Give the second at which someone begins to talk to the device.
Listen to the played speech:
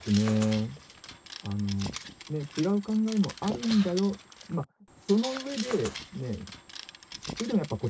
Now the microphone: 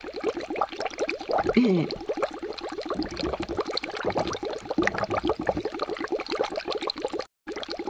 1.6 s

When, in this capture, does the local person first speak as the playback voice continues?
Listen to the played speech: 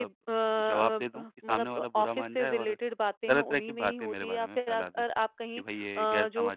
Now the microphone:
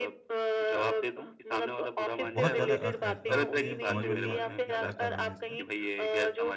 2.2 s

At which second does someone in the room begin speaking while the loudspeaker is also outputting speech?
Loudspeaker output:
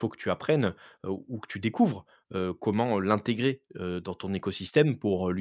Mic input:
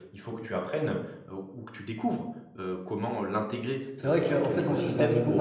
4.0 s

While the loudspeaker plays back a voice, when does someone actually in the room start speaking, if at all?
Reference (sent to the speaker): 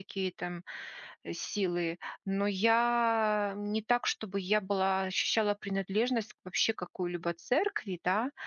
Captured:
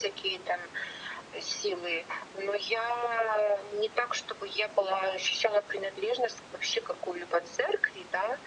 none

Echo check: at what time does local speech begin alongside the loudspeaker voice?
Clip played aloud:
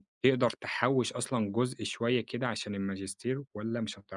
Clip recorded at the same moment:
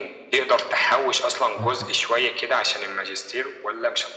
1.6 s

